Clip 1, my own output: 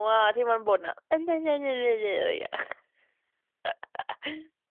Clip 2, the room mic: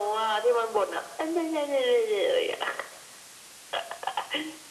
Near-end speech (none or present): none